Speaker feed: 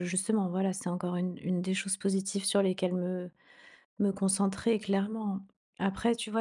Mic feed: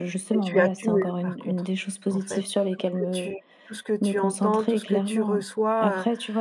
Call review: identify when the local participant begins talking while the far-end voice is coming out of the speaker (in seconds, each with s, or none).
0.3 s